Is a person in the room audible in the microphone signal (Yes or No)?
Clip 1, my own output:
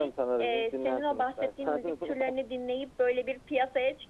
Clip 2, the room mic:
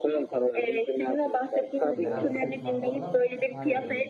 Yes